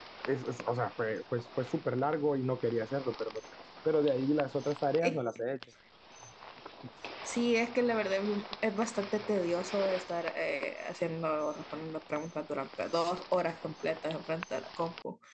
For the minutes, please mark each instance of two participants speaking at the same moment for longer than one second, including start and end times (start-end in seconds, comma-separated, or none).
none